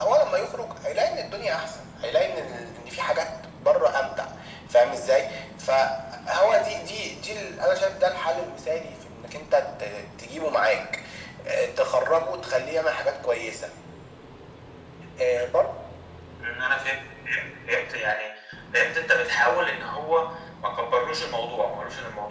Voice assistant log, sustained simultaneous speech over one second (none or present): none